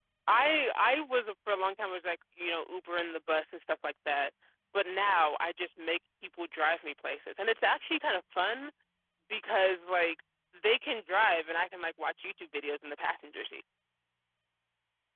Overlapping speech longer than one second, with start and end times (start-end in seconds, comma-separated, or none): none